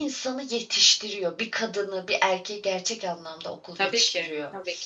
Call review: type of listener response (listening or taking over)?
taking over